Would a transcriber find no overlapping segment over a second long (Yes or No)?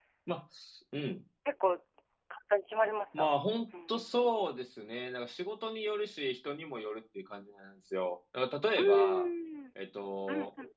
Yes